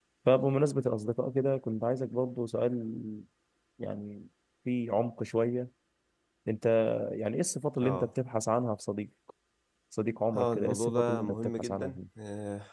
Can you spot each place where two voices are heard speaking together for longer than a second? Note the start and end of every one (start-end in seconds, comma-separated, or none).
10.4-12.0